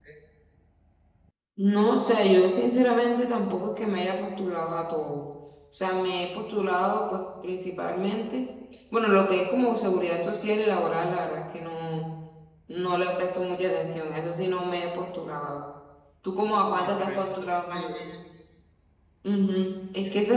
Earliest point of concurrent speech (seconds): 17 s

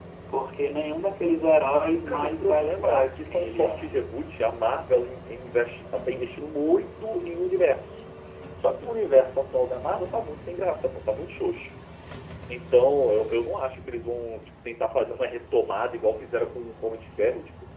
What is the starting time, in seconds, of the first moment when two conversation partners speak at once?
2 s

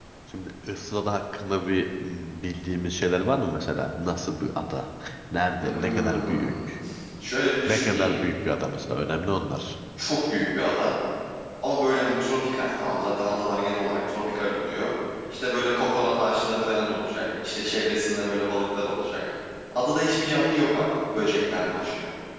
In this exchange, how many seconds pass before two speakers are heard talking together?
6 s

